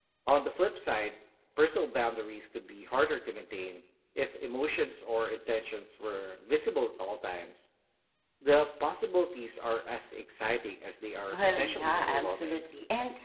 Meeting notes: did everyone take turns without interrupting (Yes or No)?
No